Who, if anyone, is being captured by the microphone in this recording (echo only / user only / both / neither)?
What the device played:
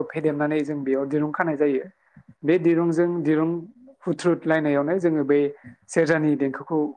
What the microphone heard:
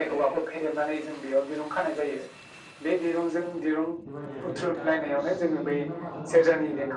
both